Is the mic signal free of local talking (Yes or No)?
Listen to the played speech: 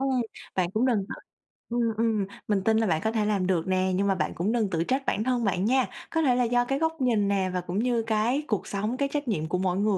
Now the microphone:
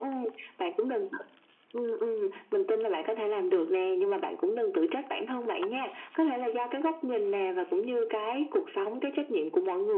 No